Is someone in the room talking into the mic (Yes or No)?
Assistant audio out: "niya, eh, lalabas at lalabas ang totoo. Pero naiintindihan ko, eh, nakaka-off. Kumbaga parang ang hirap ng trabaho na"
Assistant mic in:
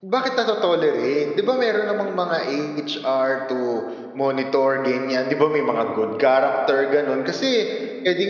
Yes